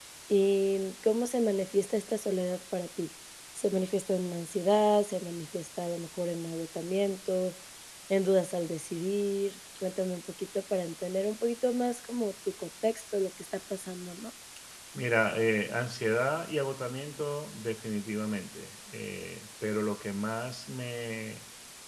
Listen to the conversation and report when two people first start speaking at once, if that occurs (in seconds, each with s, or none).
none